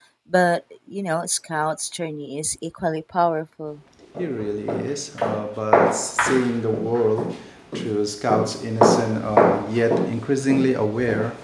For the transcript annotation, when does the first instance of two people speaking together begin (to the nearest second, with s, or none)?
none